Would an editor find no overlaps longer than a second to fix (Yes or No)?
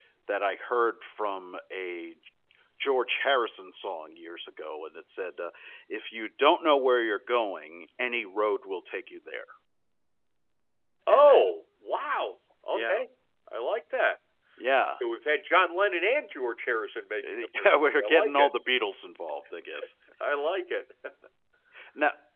No